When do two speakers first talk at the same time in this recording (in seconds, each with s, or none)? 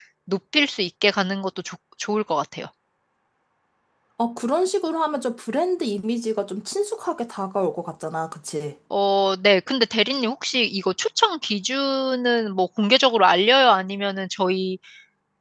none